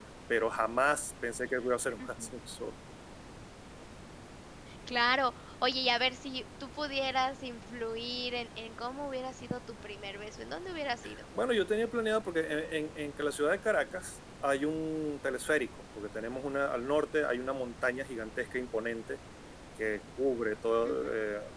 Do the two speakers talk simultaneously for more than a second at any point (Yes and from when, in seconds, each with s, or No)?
No